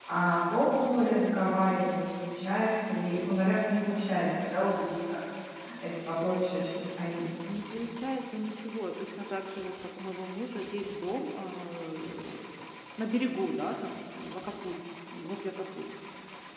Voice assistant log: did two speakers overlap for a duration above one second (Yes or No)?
No